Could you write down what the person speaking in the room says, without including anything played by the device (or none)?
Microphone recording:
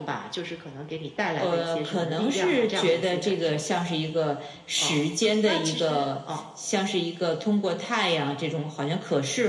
none